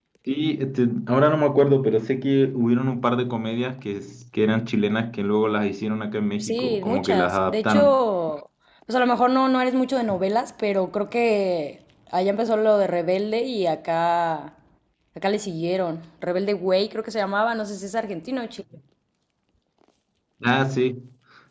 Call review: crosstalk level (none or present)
present